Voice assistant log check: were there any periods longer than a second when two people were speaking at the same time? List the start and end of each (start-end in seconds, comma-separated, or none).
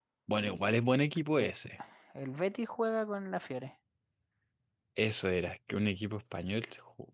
none